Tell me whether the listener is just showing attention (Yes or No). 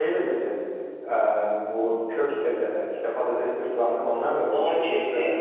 No